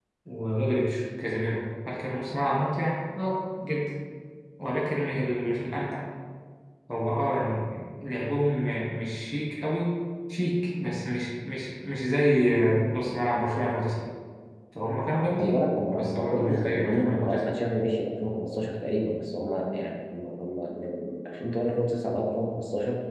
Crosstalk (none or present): present